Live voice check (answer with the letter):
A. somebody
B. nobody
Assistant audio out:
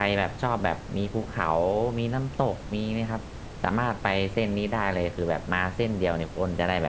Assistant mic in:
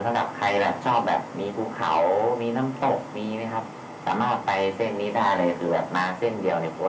B